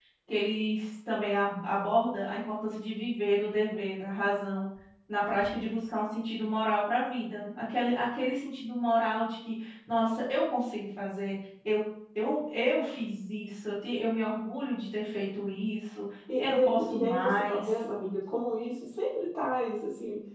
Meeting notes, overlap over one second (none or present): present